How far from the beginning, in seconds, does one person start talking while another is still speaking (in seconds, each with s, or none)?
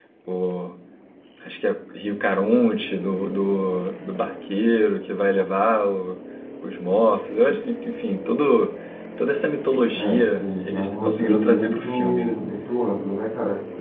10.0 s